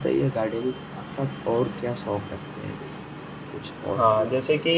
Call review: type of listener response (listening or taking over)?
taking over